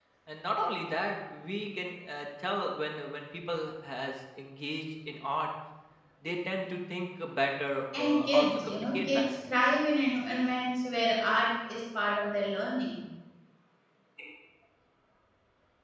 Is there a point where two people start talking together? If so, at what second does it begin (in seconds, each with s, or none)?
7.9 s